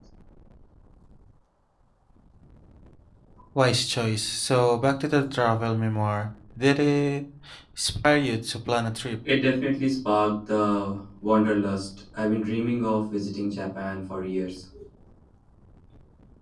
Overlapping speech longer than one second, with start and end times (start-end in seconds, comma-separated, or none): none